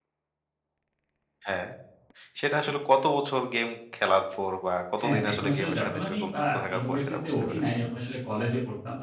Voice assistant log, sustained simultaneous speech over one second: present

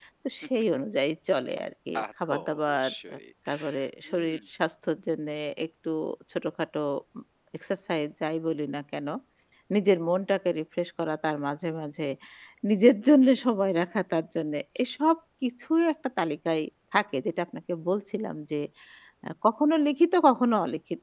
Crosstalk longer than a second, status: present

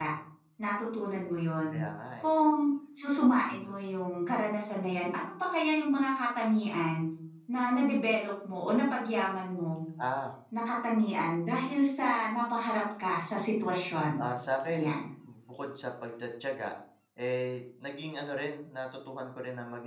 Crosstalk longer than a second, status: none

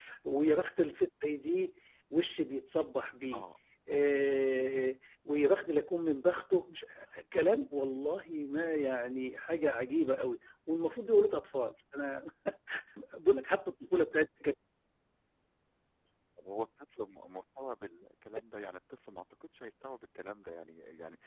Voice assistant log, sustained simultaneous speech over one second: none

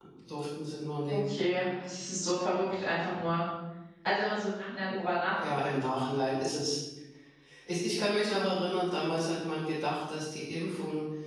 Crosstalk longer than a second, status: none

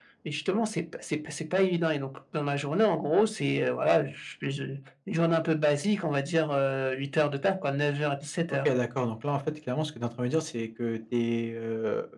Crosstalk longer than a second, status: none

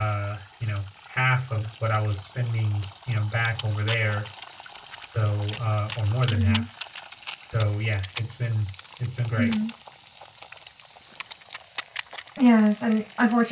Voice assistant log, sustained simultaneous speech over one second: none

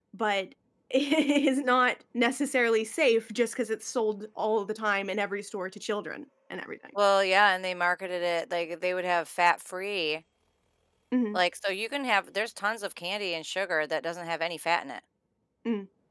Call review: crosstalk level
none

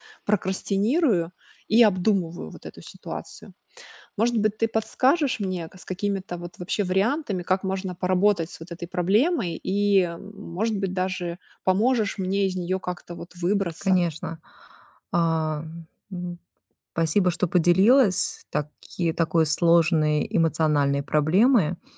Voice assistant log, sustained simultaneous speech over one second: none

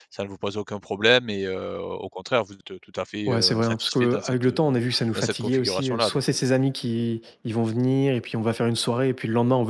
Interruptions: present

